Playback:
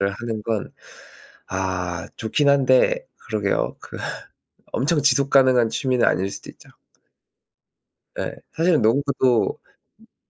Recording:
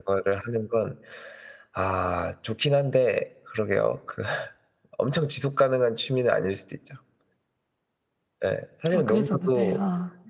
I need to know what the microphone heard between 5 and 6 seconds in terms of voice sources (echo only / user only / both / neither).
echo only